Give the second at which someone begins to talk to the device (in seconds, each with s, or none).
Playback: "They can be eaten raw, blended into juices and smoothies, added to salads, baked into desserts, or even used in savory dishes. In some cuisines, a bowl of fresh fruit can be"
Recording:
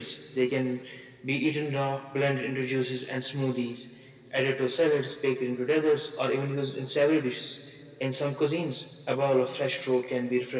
none